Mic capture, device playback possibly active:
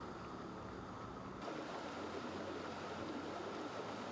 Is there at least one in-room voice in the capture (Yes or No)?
No